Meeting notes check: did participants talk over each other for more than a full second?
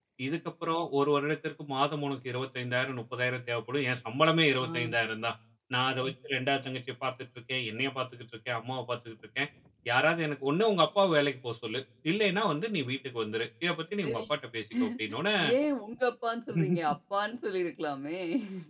No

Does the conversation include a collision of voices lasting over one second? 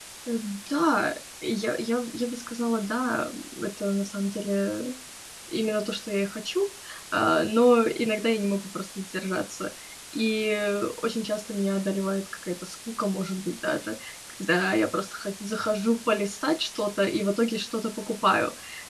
No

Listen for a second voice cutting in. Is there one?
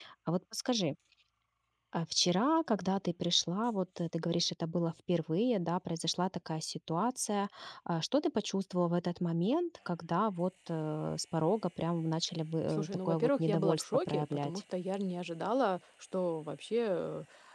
Yes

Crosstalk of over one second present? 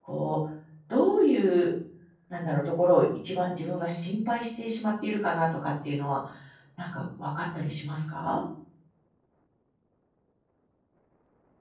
No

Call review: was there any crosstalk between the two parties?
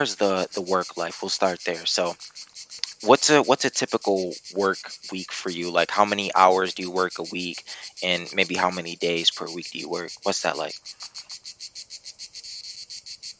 No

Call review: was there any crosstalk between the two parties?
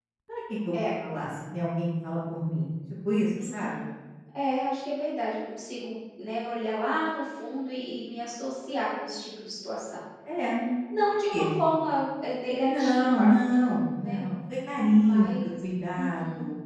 Yes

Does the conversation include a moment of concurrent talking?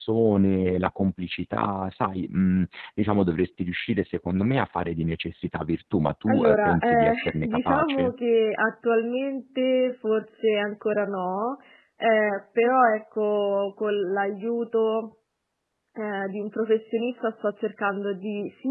Yes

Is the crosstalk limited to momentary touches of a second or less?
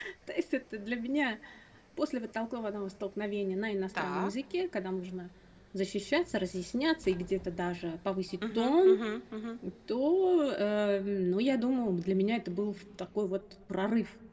Yes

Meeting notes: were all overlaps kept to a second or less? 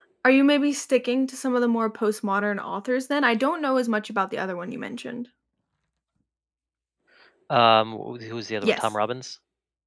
Yes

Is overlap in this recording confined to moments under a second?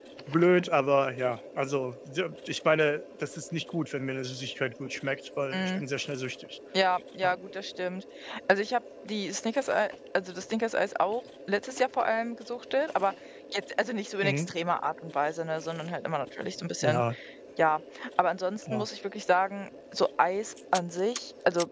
Yes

